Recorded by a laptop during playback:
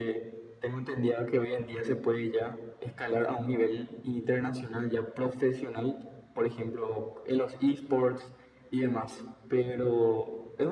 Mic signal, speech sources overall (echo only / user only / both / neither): echo only